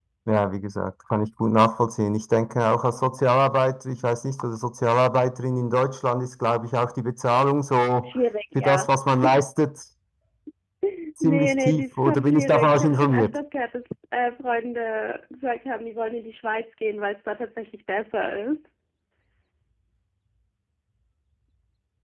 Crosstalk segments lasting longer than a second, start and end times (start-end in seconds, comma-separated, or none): 11.2-13.4